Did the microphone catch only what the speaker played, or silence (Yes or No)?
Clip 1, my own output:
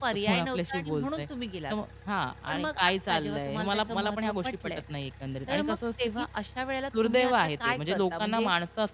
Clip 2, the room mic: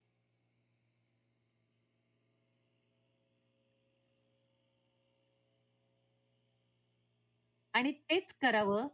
No